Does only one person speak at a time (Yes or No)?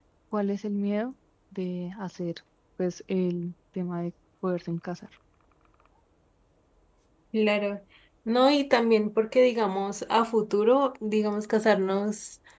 Yes